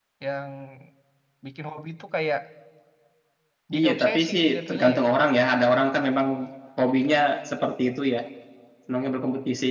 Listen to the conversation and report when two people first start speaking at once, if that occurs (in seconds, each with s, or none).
3.8 s